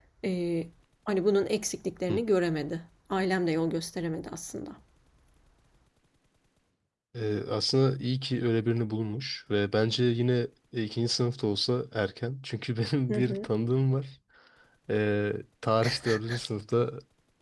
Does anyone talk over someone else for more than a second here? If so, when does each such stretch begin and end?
none

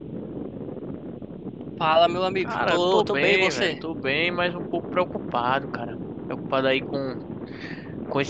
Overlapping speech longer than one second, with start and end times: 2.4-3.7

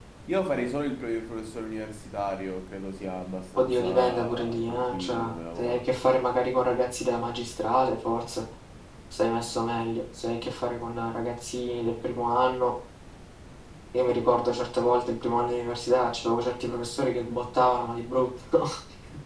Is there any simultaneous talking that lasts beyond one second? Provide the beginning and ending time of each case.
3.6-5.9

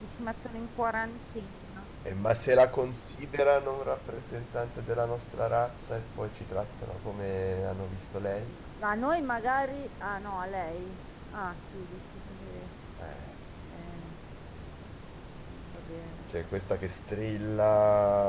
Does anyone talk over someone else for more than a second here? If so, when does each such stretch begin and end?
none

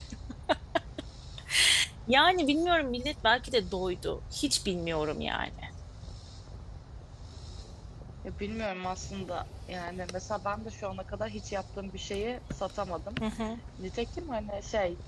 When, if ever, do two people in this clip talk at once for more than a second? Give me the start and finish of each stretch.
none

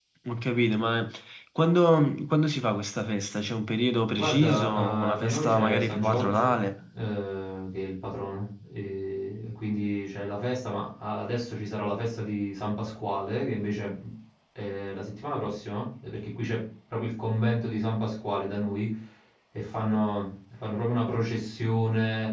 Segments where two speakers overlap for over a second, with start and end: 4.1-6.5

